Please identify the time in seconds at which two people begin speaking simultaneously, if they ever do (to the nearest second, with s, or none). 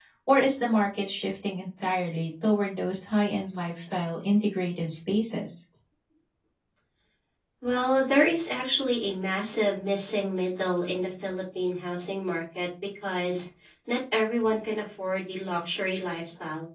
none